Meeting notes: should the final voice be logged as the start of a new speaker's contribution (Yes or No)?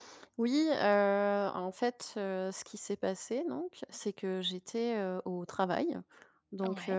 No